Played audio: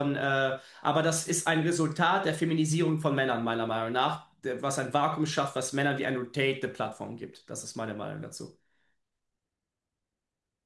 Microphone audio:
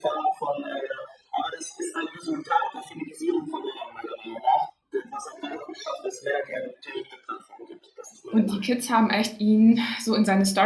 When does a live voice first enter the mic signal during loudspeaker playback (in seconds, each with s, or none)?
8.3 s